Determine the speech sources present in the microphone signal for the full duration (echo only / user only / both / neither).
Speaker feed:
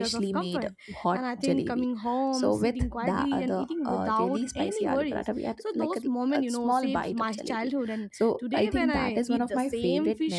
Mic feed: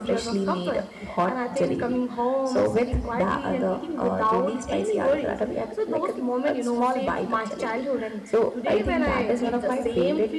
both